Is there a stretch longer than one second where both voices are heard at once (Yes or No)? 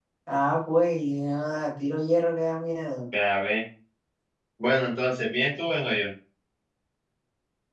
No